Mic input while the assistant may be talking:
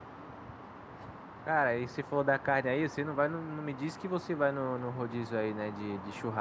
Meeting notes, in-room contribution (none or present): present